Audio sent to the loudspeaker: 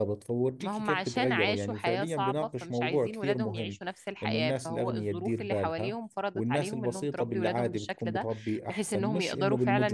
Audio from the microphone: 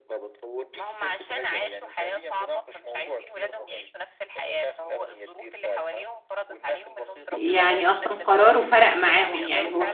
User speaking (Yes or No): Yes